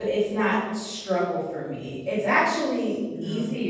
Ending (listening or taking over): listening